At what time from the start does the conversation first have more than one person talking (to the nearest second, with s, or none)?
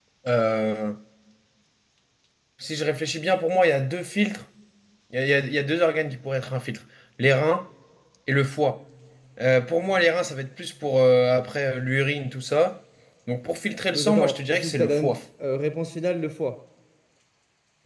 14 s